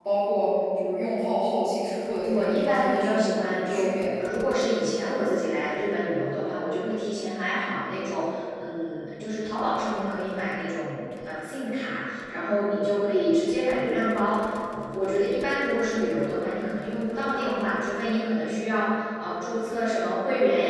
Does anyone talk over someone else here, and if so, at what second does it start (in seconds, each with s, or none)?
2.2 s